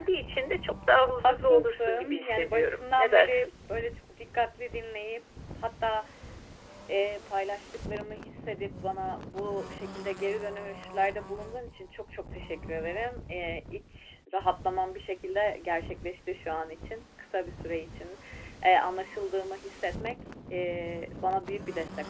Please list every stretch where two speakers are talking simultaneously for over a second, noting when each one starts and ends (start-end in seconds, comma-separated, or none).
1.2-3.5